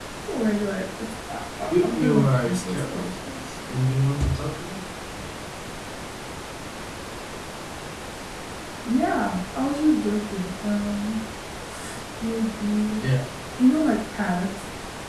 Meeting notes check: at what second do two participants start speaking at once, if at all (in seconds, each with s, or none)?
1.7 s